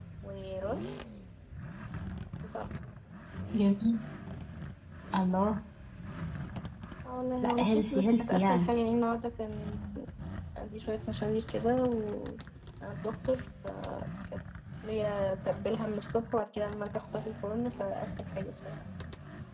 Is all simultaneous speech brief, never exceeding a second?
No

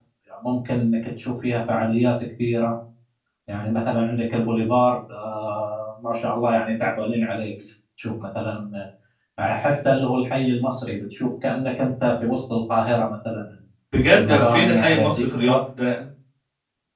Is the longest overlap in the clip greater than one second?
Yes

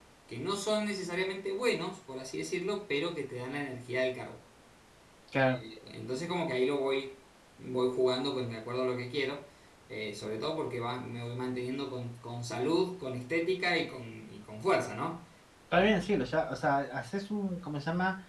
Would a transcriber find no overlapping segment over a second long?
Yes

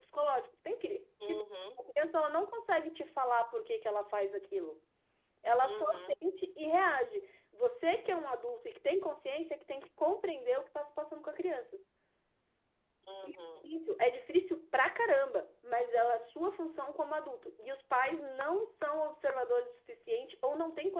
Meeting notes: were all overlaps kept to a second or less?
Yes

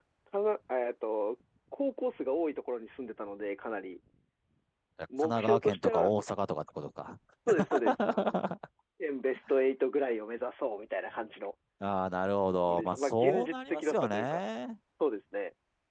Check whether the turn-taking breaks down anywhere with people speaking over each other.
Yes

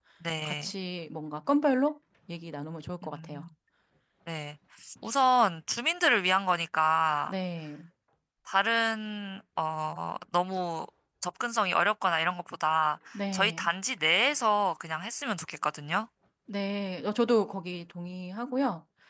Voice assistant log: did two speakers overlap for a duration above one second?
No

